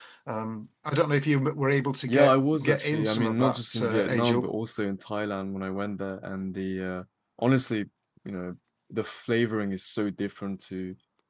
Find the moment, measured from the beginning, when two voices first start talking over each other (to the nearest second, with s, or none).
2 s